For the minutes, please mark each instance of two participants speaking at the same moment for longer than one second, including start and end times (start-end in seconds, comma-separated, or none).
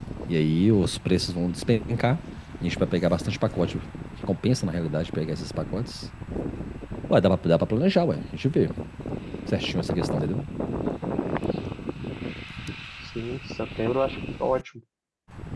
none